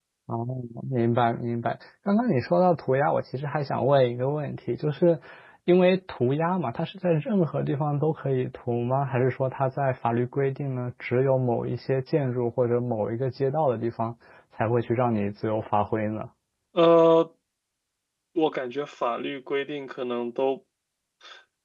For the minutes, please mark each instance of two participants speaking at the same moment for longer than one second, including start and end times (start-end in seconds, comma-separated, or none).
none